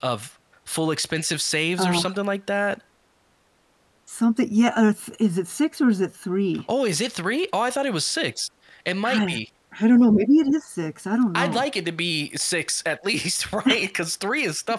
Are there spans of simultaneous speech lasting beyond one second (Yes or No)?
No